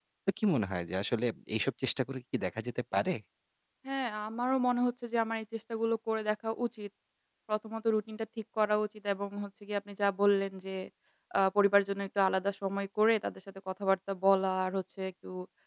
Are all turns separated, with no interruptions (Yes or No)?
Yes